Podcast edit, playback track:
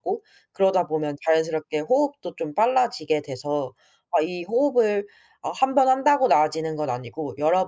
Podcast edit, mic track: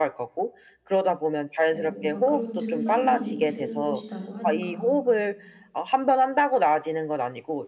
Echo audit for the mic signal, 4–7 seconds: both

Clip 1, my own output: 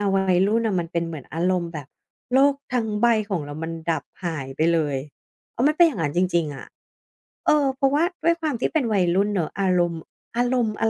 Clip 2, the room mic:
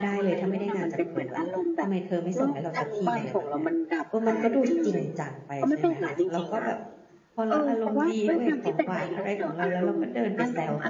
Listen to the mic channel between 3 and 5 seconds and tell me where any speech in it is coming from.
both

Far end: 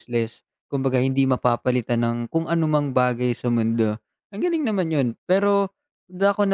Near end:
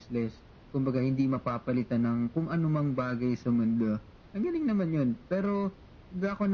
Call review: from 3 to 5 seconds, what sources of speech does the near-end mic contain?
echo only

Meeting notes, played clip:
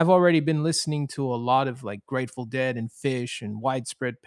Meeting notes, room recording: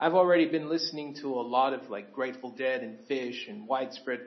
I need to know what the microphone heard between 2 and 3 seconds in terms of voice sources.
echo only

